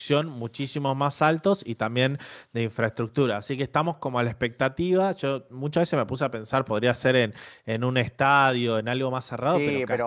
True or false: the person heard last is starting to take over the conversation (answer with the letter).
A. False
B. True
B